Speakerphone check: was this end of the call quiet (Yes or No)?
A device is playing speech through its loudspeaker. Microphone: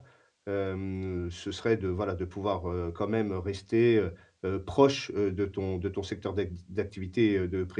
No